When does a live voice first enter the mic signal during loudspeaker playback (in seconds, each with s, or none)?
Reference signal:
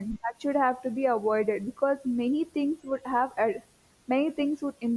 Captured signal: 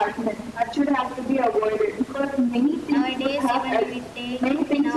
2.9 s